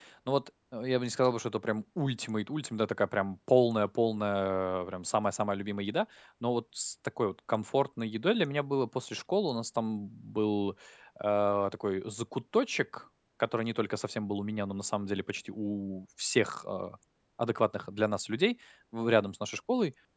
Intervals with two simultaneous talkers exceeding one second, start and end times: none

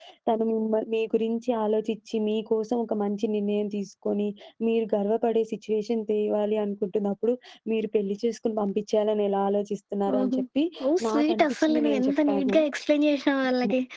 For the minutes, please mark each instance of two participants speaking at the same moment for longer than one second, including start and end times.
11.1-12.6

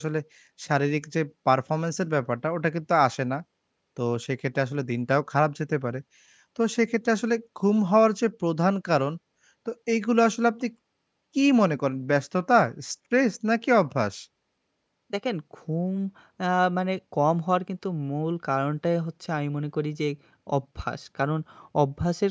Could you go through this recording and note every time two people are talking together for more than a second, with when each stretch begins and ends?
none

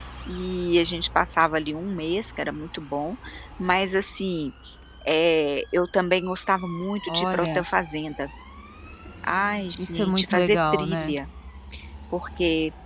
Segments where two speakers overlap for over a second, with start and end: 9.9-11.2

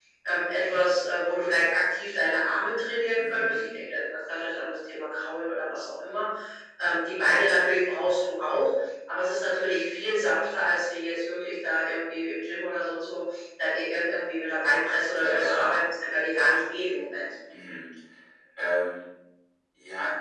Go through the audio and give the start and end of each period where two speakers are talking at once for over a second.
none

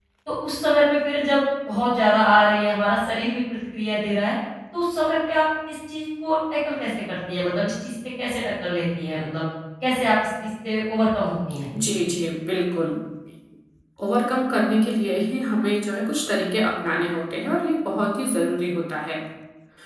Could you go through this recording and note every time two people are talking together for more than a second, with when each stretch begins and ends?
none

